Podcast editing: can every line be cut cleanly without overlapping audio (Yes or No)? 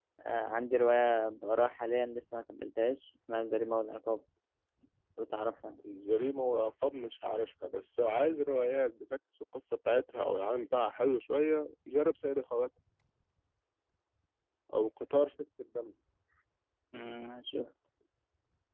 Yes